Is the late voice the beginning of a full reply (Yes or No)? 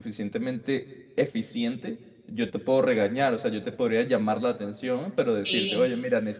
No